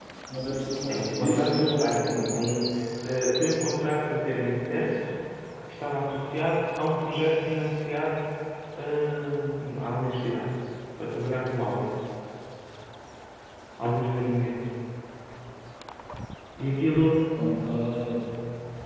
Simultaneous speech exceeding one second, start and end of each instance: 0.9-2.3

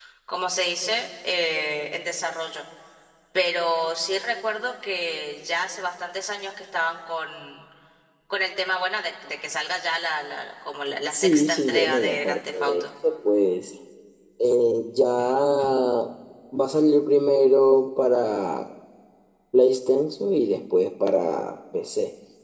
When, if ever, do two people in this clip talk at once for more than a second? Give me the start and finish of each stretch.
11.1-12.8

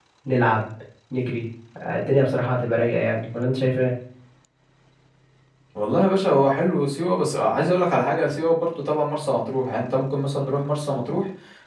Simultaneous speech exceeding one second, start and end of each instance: none

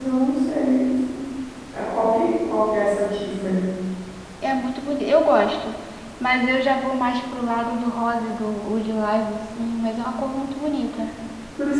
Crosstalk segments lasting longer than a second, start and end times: none

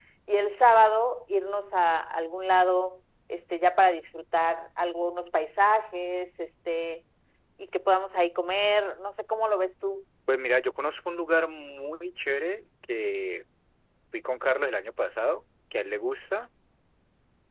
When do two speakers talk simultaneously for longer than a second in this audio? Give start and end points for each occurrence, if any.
none

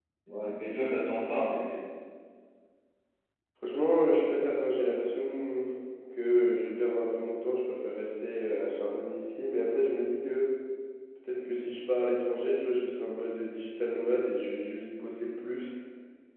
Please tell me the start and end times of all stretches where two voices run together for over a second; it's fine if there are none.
none

